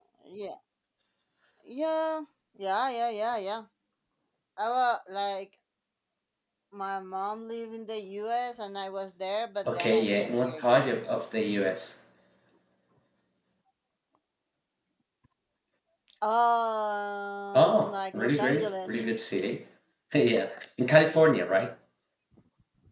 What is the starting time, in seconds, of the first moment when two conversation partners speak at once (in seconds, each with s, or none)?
9.7 s